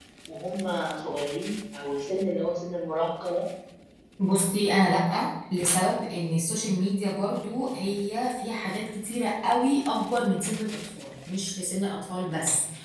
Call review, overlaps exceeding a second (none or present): none